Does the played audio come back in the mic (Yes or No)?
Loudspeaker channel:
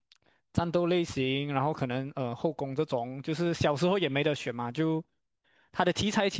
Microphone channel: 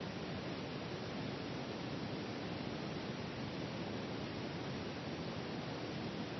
No